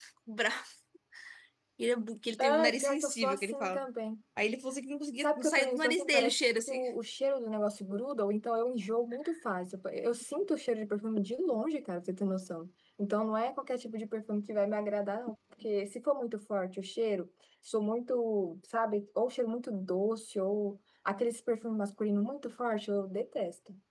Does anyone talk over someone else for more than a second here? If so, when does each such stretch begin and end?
2.4-3.8, 5.2-6.8

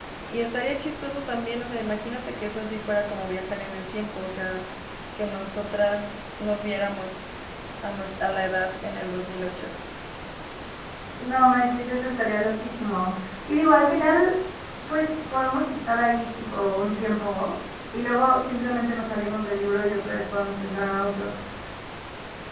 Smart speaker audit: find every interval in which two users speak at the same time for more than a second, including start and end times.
none

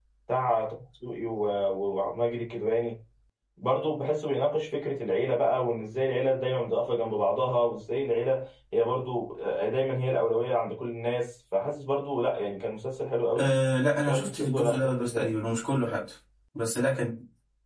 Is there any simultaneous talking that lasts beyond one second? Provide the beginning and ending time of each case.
14.0-15.3

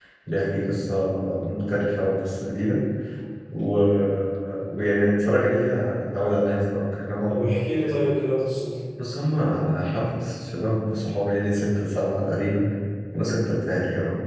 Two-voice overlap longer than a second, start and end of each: none

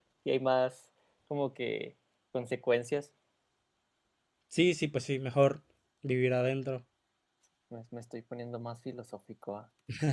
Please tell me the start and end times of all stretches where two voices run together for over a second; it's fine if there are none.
none

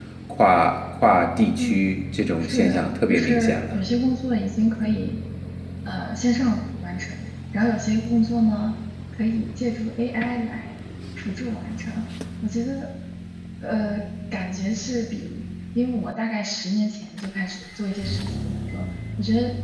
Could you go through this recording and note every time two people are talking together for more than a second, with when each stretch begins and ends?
2.4-3.8

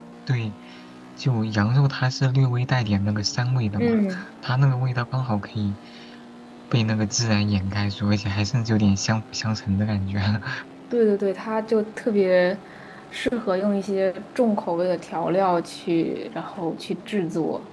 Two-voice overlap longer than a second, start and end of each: none

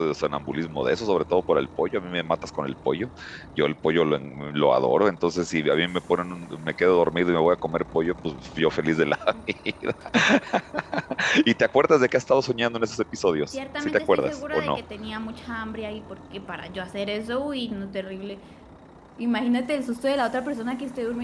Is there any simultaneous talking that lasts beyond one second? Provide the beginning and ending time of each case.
13.5-14.8

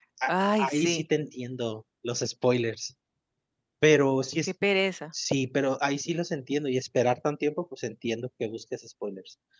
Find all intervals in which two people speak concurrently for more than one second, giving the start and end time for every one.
none

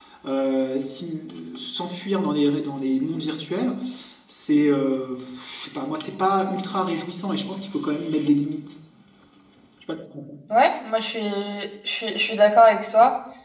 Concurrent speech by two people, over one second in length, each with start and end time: none

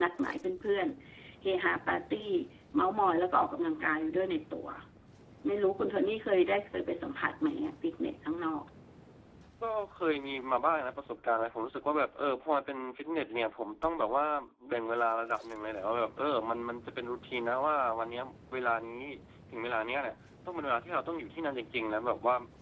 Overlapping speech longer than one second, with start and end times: none

